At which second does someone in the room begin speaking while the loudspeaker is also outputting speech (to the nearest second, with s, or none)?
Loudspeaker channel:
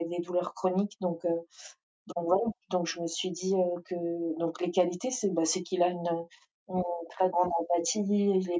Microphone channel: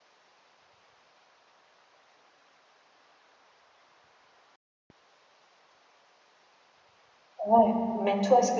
7 s